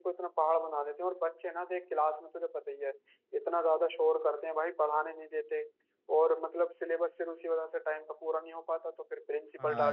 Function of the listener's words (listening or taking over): taking over